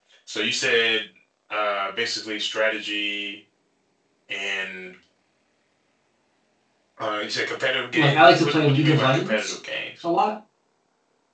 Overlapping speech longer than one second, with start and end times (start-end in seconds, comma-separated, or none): 7.9-9.5